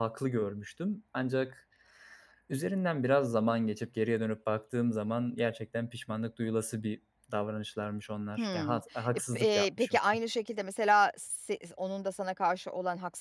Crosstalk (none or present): present